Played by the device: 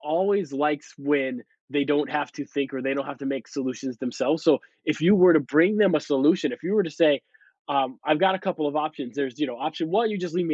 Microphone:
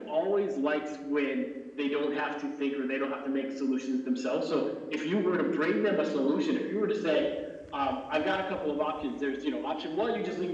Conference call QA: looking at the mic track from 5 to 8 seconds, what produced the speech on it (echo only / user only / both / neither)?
echo only